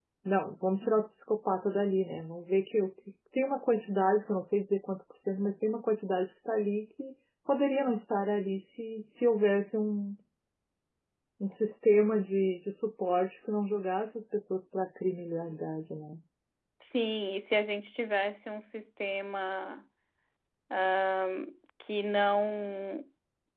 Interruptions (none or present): none